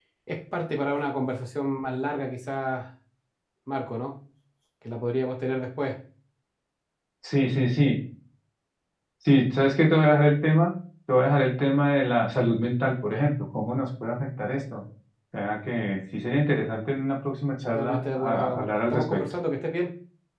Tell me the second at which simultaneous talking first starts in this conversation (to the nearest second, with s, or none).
18 s